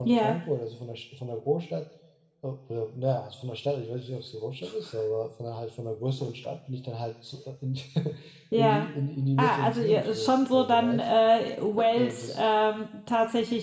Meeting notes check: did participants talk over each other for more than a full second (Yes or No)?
Yes